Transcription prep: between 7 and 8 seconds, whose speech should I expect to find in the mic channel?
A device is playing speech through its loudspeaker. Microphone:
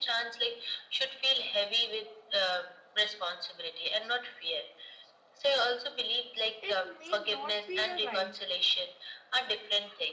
both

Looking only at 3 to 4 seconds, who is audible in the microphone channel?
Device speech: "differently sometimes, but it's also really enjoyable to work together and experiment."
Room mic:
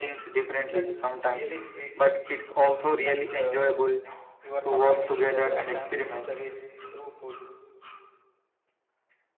both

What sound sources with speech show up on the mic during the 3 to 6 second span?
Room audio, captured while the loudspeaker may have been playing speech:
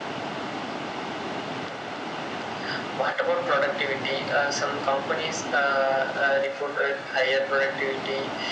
echo only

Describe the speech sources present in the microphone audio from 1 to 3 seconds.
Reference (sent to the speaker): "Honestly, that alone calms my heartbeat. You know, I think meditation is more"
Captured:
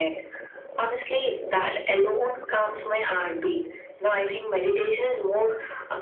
echo only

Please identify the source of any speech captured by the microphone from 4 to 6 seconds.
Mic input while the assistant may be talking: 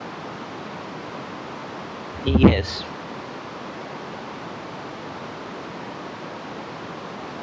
neither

